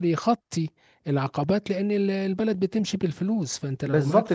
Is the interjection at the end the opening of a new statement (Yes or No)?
Yes